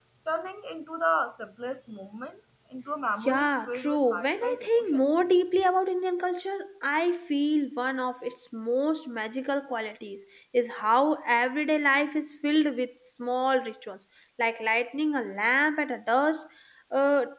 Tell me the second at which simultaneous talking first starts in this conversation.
3.2 s

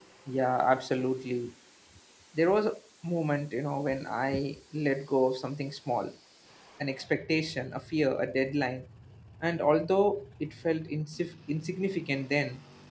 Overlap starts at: none

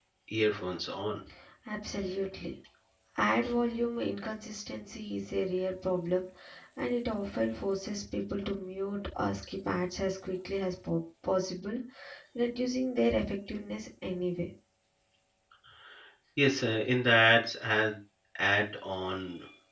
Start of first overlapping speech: none

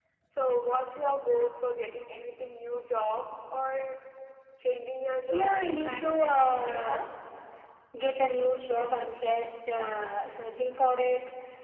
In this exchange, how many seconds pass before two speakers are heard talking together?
5.3 s

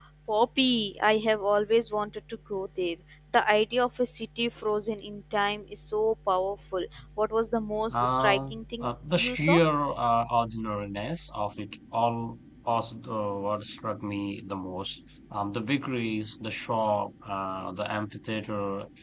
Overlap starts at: 7.9 s

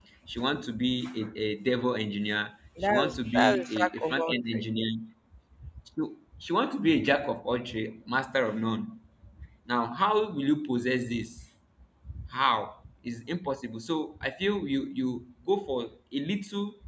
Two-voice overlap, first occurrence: 2.8 s

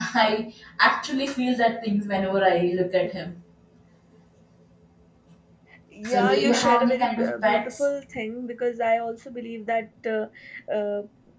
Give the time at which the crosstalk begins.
6.1 s

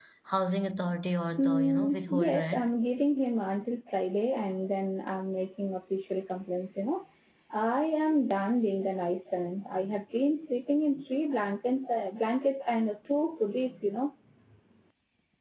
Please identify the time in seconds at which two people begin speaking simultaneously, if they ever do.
1.4 s

